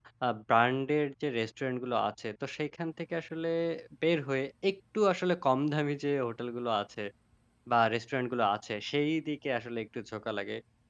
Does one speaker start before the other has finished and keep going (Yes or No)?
No